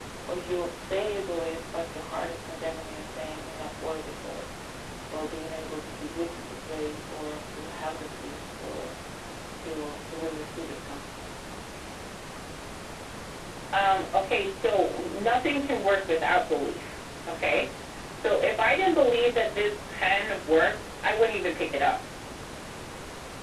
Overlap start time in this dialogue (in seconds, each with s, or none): none